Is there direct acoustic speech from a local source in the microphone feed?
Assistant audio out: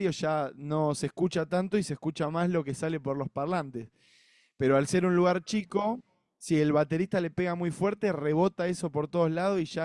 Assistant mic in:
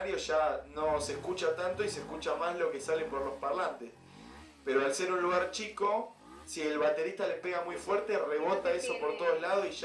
Yes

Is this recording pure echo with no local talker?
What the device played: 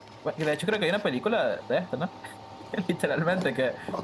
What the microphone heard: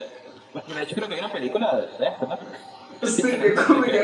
No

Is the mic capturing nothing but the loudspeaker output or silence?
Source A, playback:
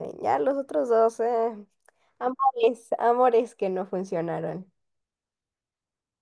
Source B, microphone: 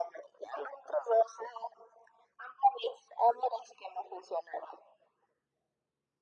Yes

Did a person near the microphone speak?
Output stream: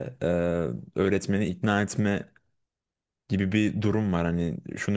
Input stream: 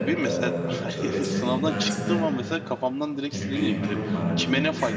Yes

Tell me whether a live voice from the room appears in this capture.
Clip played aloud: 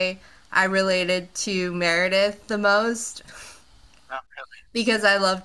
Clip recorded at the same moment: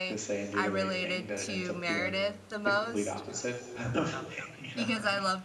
Yes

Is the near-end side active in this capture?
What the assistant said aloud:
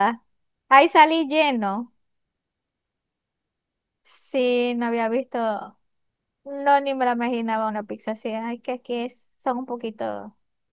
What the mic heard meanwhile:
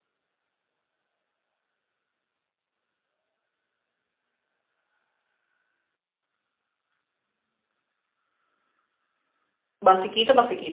Yes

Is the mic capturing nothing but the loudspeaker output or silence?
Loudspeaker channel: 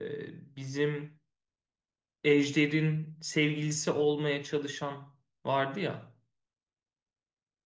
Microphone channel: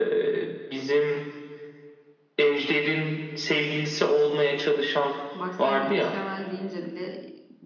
No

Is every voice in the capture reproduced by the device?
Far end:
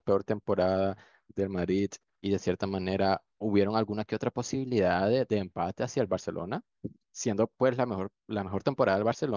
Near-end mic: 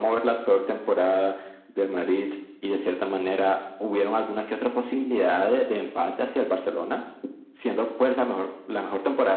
Yes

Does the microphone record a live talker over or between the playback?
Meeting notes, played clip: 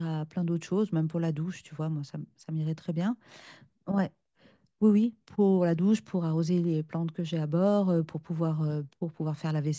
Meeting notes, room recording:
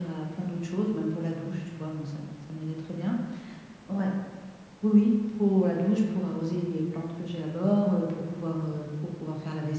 No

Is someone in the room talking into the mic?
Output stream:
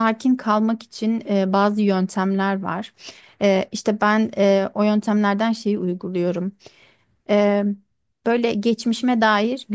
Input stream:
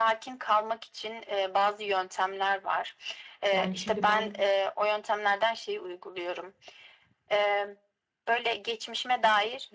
Yes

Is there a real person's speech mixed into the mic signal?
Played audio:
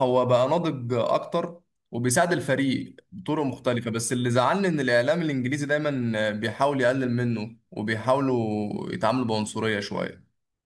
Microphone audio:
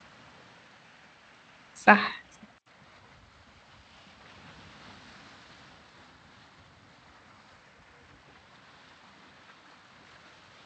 Yes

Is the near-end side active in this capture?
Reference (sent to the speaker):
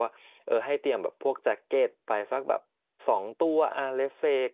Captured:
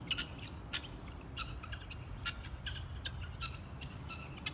No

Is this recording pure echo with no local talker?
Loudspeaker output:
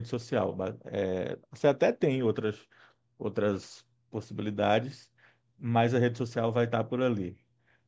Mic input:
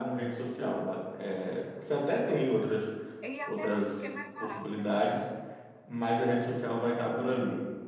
No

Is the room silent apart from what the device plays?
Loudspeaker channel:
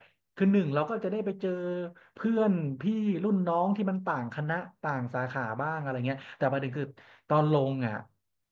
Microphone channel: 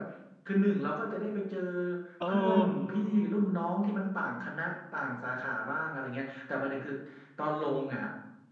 No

